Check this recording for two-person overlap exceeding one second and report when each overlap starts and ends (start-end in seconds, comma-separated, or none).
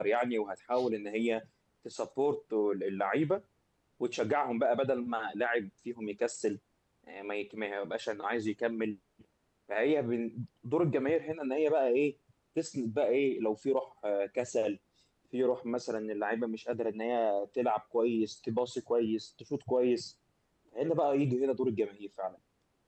none